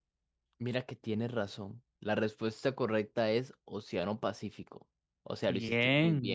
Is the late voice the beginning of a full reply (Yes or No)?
Yes